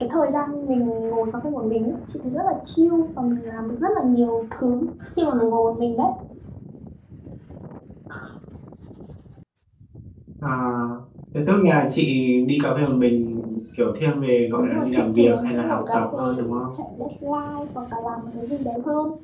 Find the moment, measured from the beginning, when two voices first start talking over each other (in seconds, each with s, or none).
14.6 s